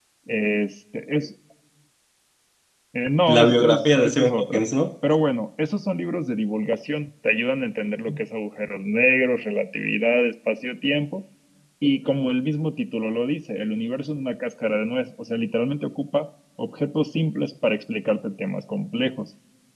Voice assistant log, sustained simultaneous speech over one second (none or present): present